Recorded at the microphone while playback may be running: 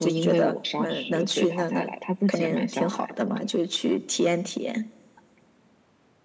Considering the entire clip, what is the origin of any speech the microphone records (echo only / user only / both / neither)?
echo only